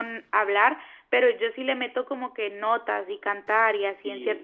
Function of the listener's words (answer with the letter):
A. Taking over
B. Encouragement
A